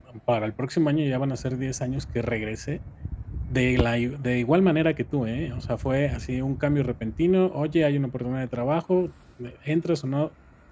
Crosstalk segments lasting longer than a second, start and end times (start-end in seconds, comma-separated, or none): none